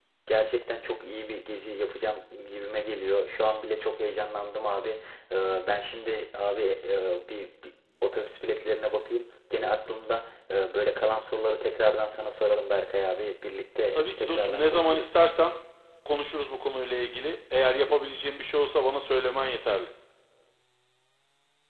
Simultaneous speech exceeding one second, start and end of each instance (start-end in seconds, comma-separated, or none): 13.9-15.2